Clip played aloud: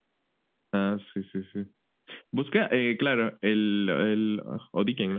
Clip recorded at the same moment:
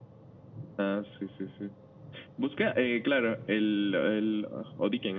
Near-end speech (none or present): none